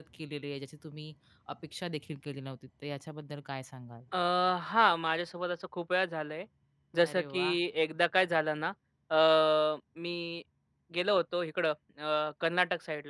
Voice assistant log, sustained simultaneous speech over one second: none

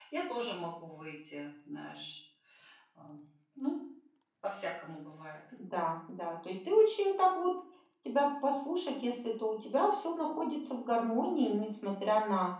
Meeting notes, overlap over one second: none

